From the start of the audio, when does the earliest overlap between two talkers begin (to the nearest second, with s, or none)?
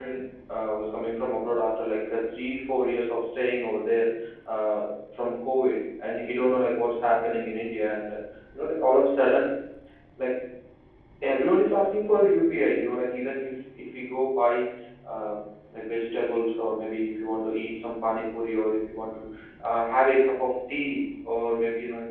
none